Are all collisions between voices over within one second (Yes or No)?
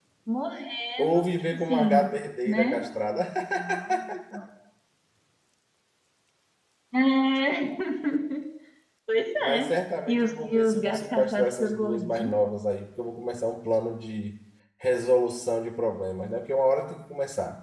No